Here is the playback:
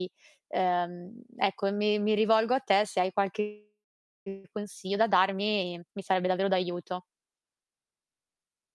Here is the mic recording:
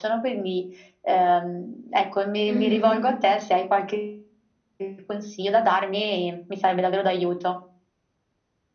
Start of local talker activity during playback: 2.5 s

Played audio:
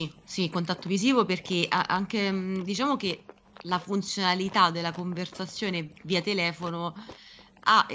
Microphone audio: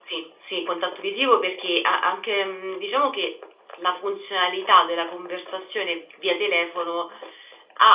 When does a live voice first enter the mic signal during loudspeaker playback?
none

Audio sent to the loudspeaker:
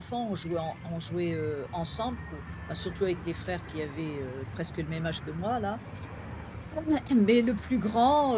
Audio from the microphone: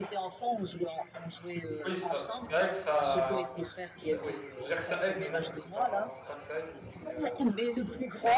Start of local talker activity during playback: 1.8 s

